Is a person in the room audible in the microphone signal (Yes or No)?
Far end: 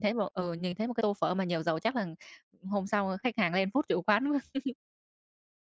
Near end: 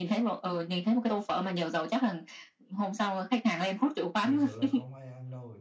Yes